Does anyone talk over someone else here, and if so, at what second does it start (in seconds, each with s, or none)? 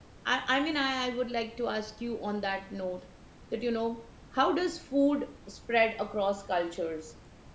none